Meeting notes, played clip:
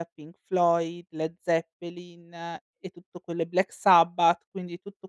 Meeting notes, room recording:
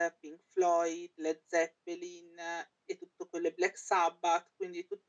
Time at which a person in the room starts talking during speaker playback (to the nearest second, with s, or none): none